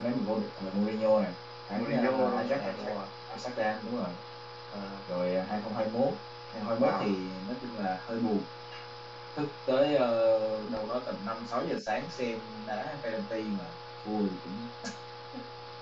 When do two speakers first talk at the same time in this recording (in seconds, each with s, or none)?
1.7 s